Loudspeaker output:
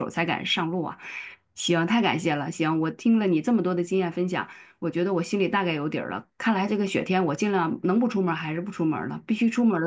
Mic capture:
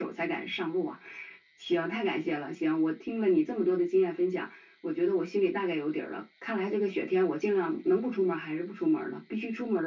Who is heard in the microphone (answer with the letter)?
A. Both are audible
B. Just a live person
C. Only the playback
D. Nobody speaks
C